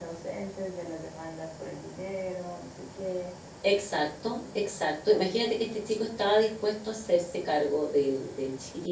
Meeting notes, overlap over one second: none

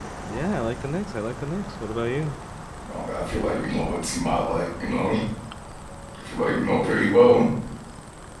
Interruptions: none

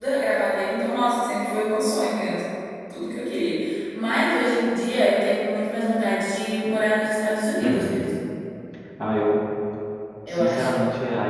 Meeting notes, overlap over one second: none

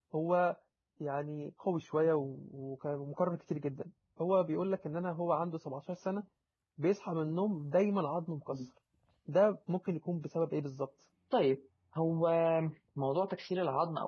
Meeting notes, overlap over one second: none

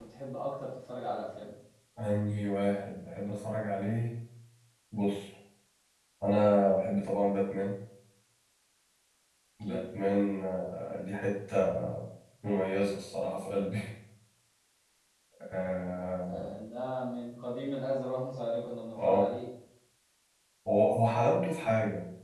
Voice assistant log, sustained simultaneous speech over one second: none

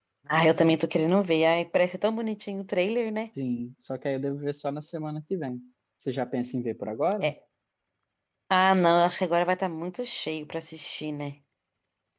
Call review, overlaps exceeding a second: none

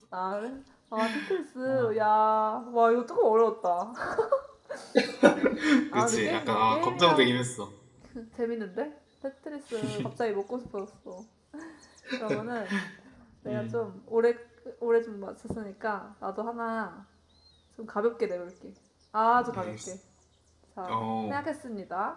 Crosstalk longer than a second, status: present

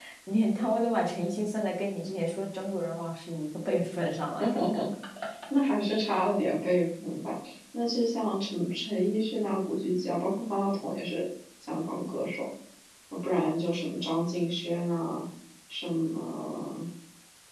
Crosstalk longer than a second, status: none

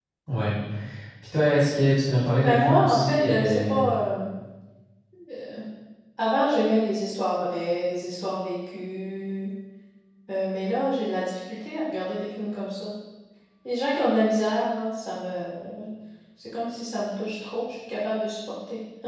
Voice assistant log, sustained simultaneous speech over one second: present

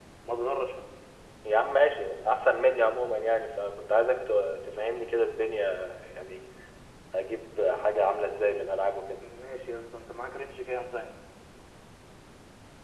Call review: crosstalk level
none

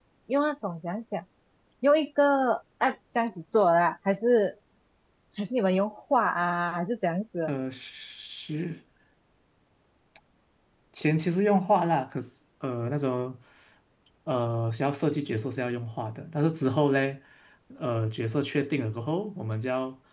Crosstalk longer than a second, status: none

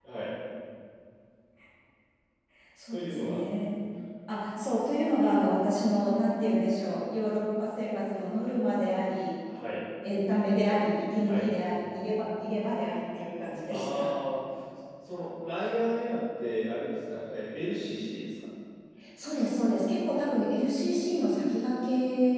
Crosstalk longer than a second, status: none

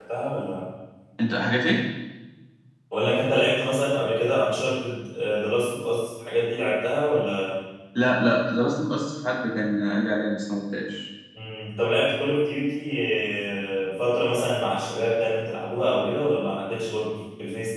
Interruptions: none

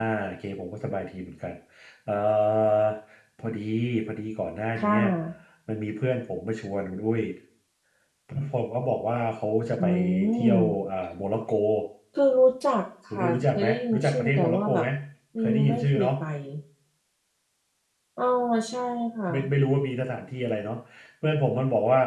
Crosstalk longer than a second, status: present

